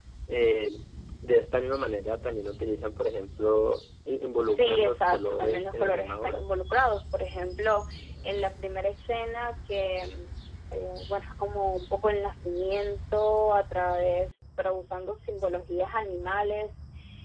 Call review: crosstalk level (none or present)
present